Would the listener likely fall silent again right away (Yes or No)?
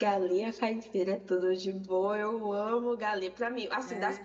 Yes